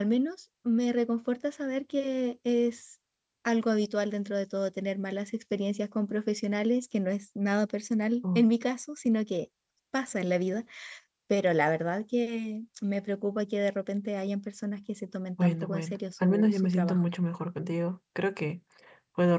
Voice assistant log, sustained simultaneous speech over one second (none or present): present